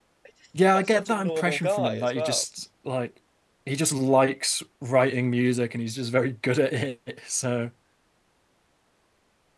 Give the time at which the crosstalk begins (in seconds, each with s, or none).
0.7 s